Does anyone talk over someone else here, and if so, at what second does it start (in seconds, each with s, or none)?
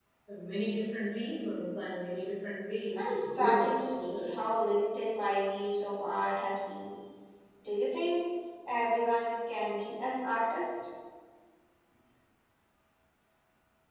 3.0 s